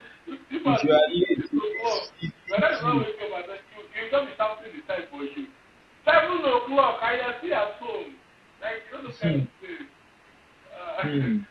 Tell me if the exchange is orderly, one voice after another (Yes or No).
No